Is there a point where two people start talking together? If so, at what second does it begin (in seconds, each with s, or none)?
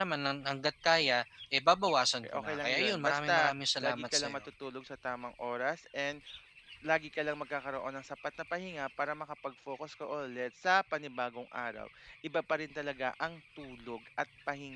2.2 s